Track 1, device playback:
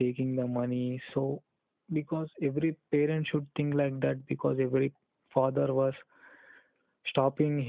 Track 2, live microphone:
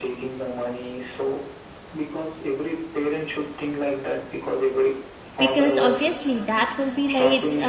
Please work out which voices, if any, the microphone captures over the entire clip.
both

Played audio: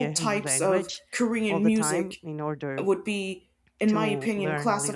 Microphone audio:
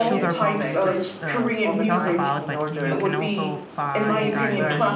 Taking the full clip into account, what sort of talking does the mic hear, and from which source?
both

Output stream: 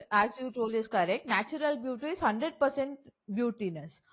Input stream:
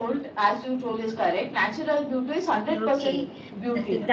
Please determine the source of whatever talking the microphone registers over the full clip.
both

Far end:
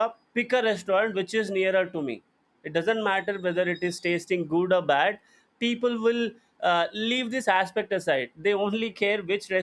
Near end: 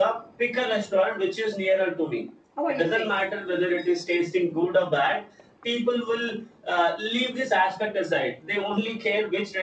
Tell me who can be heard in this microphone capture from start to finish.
both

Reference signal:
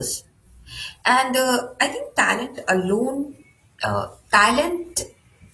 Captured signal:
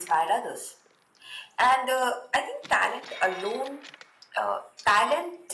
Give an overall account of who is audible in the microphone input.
echo only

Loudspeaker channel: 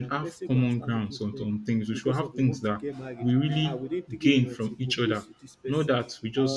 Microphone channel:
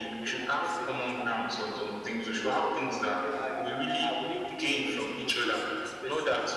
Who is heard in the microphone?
echo only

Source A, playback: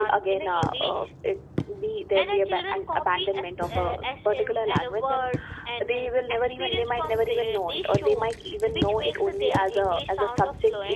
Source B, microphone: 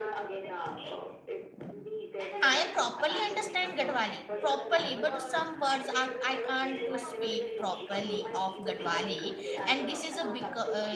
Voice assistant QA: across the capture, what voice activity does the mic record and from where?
both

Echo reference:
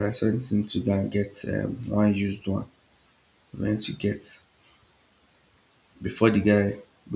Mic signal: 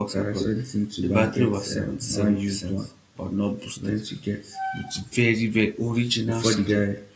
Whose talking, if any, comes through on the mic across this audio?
both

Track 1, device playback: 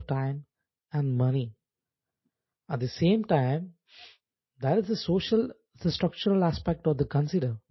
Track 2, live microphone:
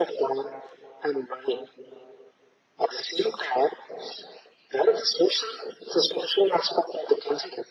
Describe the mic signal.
echo only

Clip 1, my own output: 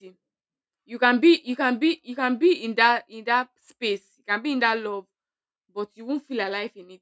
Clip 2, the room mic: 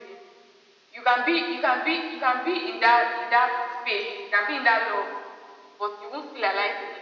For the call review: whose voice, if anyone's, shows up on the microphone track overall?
echo only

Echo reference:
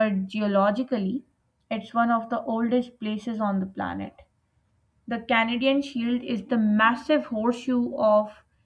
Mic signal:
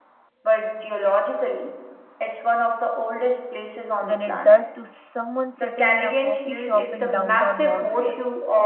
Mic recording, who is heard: both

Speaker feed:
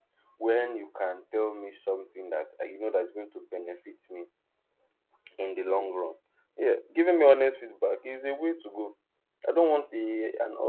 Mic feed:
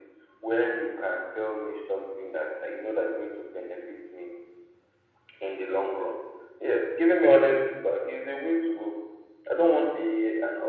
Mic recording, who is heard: echo only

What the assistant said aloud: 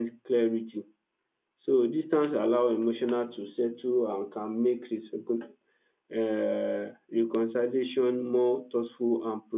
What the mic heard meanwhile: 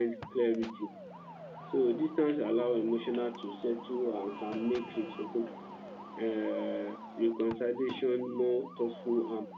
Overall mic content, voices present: echo only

